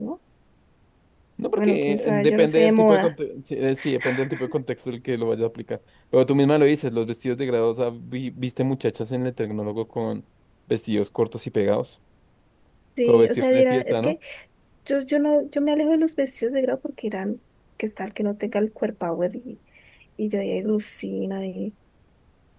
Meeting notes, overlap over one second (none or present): present